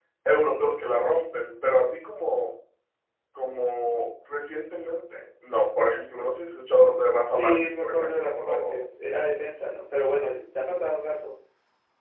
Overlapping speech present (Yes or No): Yes